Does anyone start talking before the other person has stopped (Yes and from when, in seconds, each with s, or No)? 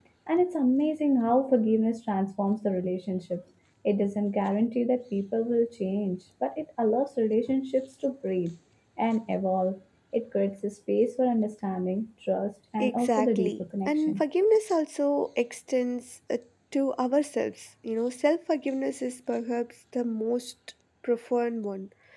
Yes, from 12.8 s